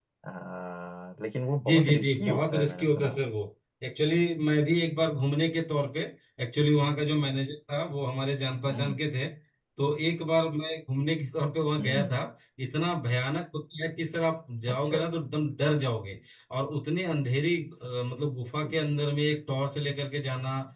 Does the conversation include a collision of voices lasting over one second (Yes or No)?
Yes